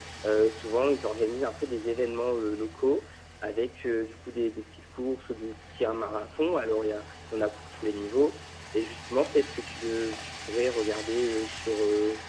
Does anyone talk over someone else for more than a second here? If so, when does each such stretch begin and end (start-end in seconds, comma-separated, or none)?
none